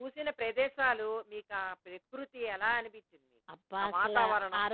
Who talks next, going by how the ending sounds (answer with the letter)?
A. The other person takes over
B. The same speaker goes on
A